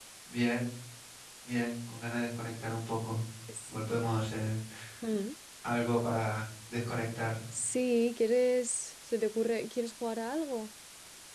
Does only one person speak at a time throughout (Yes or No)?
Yes